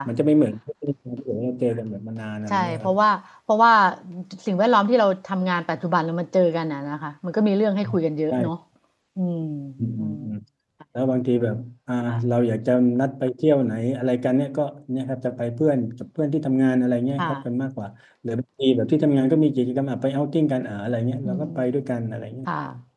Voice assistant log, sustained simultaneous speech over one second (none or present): none